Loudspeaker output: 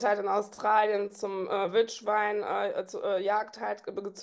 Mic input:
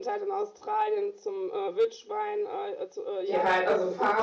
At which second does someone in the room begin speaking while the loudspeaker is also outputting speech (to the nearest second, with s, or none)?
3 s